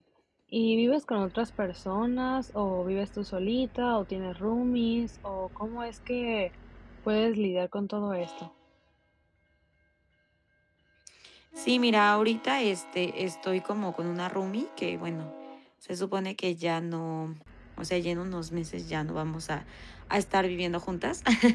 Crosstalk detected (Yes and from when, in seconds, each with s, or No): No